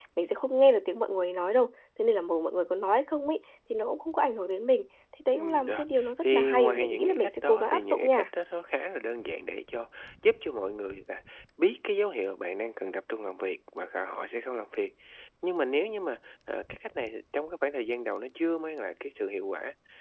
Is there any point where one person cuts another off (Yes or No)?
Yes